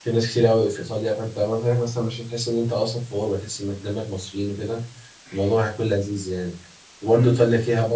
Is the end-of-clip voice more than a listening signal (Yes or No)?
No